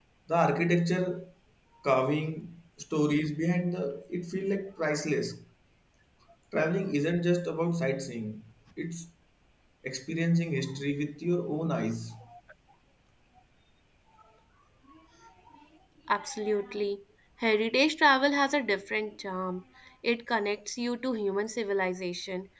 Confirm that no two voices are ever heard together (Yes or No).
Yes